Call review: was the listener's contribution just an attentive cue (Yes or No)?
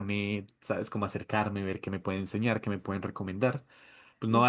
Yes